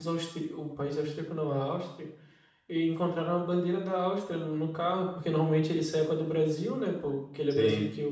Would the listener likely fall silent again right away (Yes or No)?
Yes